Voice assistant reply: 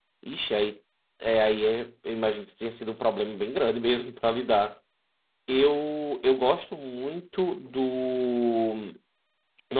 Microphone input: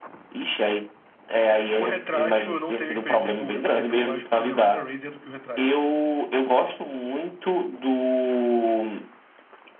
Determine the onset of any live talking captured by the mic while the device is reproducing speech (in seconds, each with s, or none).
1.5 s